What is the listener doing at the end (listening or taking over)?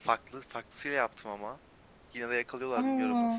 listening